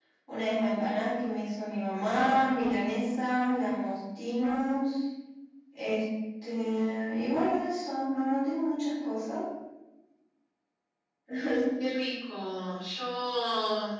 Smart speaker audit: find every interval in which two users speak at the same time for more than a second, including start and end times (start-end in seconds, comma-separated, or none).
none